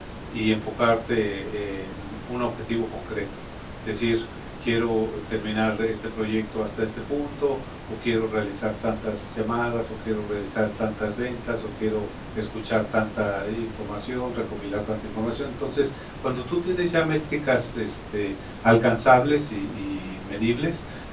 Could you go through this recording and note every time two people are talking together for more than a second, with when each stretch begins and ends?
none

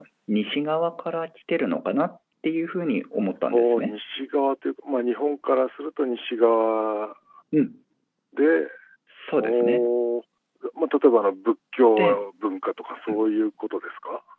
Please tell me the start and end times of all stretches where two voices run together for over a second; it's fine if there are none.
none

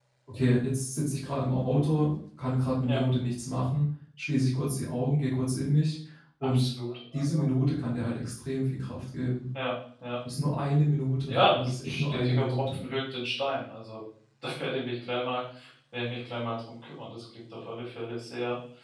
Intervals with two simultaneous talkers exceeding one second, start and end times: 11.3-12.8

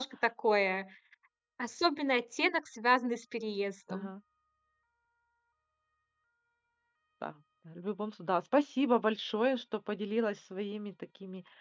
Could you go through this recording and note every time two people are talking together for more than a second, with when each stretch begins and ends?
none

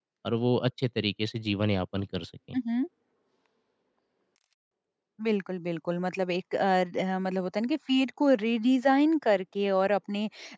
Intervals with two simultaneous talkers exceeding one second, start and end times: none

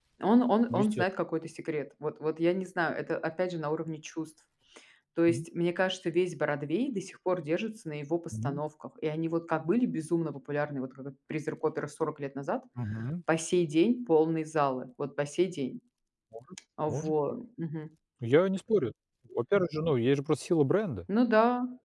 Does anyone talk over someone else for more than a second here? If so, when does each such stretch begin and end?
none

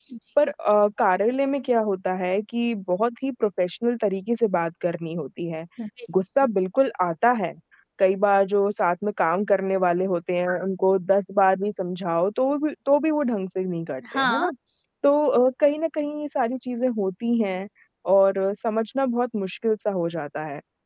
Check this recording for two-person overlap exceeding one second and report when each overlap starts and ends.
none

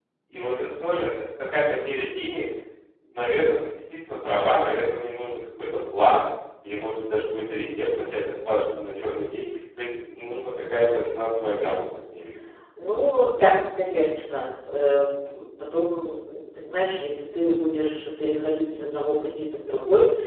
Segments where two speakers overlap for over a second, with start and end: none

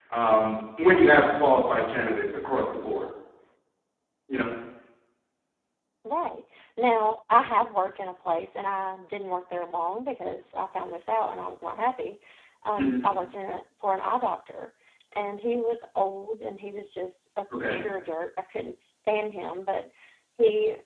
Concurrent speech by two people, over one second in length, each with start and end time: none

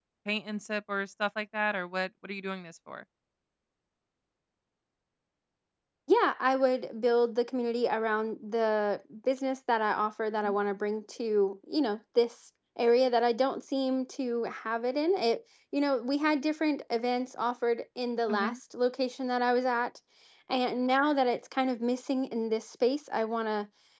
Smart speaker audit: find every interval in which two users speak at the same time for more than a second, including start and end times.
none

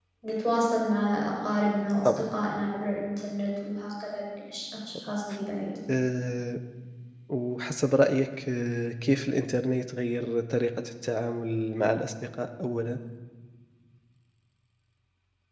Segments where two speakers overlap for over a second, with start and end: none

